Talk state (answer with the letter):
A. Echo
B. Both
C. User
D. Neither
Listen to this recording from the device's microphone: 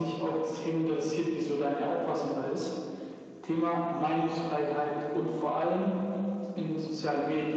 A